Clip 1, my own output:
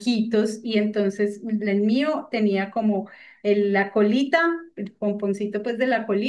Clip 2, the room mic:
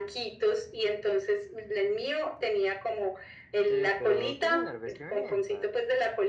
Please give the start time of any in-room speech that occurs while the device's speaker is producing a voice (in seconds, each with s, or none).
3.6 s